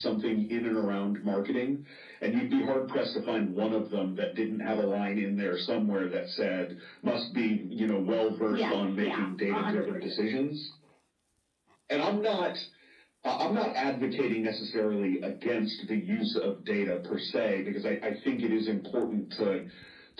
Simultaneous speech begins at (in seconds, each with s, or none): 8.5 s